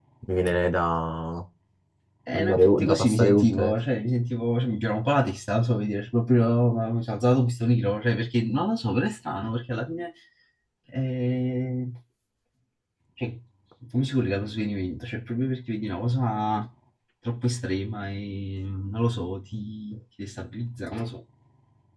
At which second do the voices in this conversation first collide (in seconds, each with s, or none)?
2.3 s